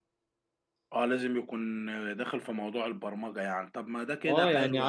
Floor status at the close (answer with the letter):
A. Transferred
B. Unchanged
A